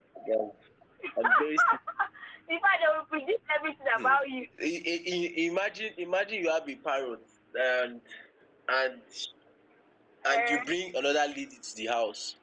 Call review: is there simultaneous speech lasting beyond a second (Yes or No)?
No